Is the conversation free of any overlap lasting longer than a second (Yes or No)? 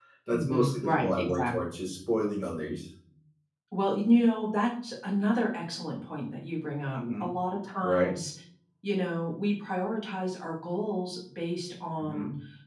No